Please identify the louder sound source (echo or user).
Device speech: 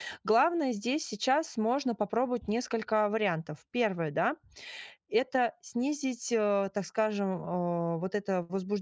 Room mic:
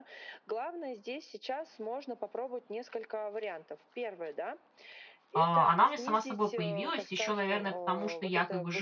user